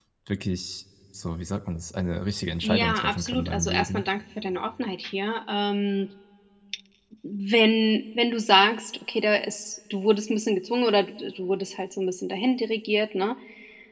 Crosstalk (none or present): present